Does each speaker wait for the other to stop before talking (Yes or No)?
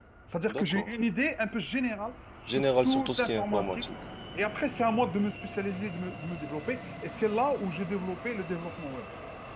No